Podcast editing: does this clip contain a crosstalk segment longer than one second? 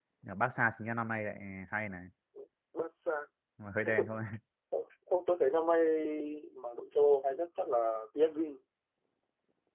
No

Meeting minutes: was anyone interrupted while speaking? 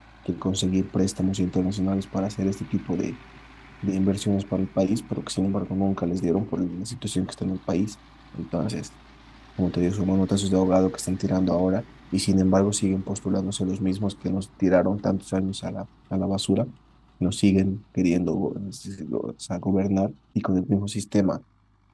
No

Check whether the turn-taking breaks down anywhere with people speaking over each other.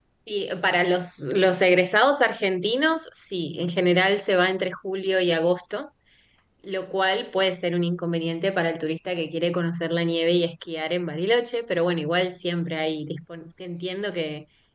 No

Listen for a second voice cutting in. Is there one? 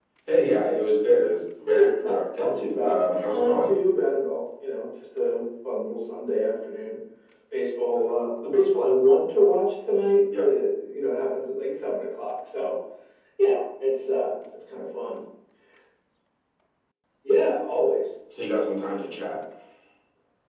Yes, from 1.7 s

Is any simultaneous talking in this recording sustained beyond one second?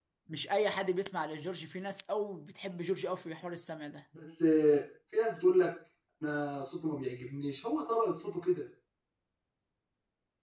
No

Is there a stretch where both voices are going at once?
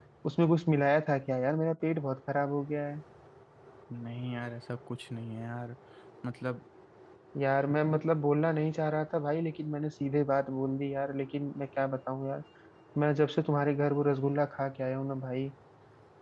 No

